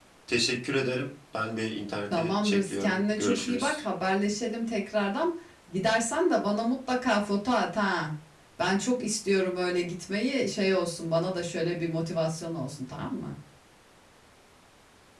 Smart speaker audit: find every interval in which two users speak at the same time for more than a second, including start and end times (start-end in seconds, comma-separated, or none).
2.1-3.8